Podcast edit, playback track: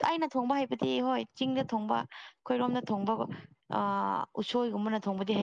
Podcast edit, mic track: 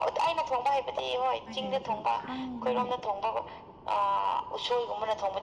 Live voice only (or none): ꯍꯣꯏꯅꯦ ꯑꯗꯨ ꯈꯪꯗꯦꯅꯦ